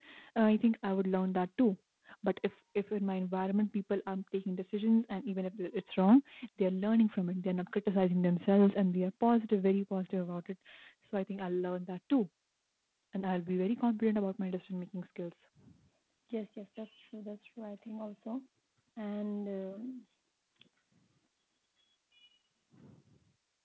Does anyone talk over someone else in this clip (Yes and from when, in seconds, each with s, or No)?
No